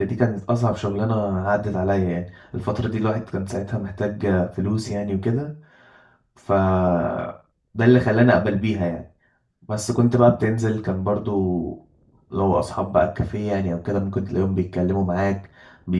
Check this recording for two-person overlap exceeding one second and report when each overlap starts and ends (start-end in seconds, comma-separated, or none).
none